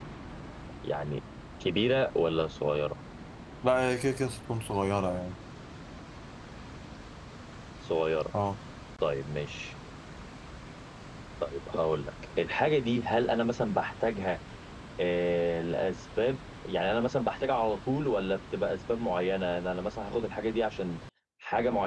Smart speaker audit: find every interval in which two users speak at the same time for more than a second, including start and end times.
none

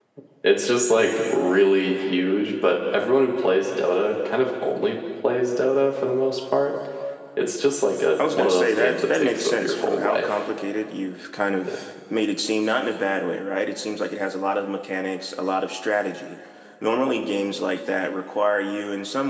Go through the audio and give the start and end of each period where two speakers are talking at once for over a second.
8.2-10.3

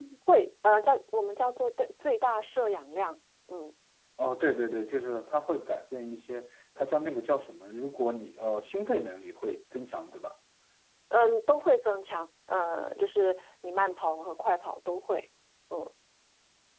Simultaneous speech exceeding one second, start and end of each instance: none

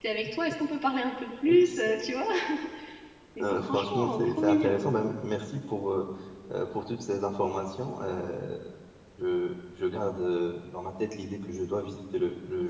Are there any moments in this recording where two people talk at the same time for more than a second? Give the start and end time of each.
3.5-4.8

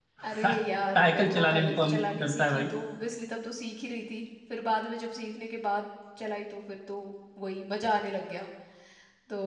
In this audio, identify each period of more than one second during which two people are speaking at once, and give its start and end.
1.0-2.7

